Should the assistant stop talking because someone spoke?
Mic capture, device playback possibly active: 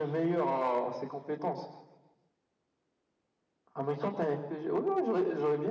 No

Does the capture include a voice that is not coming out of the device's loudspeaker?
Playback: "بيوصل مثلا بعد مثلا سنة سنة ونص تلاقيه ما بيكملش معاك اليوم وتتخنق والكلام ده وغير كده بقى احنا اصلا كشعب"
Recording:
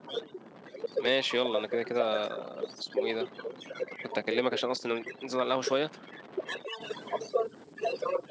Yes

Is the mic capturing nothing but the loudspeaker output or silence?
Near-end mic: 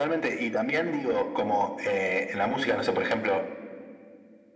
Yes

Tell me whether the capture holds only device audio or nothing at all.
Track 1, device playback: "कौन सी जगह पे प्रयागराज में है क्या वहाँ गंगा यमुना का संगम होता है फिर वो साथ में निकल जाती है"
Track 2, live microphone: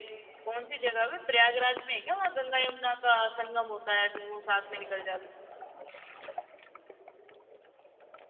Yes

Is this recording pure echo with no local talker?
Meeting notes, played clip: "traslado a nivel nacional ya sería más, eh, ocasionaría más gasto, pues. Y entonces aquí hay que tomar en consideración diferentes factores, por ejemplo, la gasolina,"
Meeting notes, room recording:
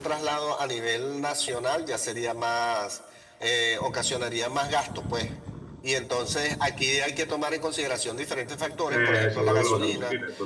No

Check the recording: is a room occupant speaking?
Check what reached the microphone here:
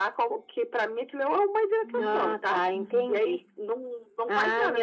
Yes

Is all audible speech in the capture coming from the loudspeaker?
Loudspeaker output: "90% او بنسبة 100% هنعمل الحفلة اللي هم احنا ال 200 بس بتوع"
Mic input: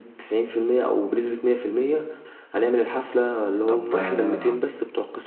No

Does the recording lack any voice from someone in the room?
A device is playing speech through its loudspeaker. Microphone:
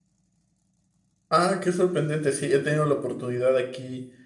No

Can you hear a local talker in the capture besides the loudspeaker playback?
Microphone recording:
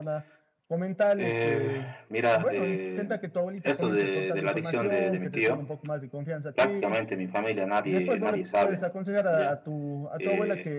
Yes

